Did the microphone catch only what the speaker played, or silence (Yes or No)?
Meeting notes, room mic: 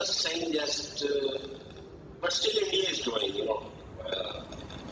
Yes